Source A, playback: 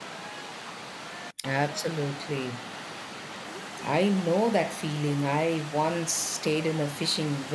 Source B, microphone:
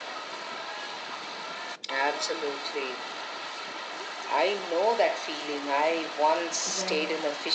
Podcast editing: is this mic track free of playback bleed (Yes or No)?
No